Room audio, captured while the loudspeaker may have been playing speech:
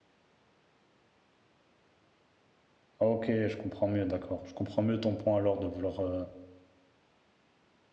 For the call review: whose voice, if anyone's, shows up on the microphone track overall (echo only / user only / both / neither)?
user only